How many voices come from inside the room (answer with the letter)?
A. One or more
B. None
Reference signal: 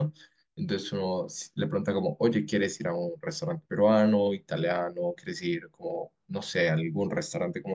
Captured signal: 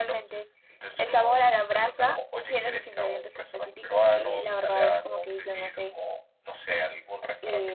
A